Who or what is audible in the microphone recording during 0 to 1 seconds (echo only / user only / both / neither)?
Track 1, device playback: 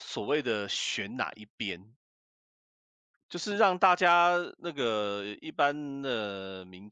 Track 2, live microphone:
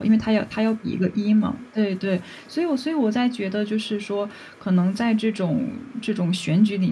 user only